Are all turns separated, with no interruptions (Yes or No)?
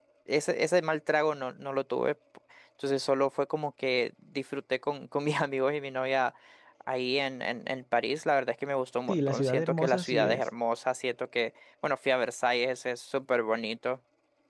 No